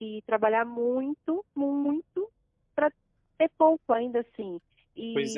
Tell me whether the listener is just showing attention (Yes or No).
Yes